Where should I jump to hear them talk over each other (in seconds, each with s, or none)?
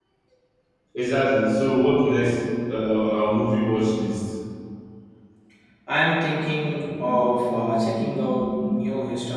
6.8 s